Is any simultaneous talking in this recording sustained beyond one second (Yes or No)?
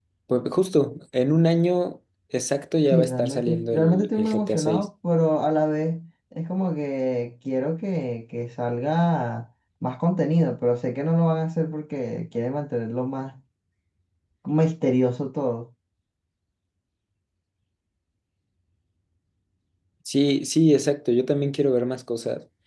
Yes